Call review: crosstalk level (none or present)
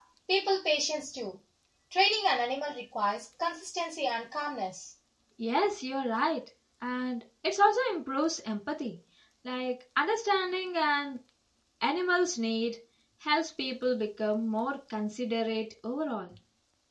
none